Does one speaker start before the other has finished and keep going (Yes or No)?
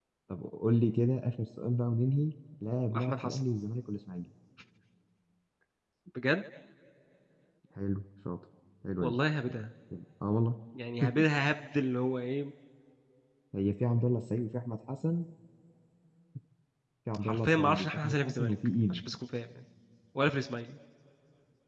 Yes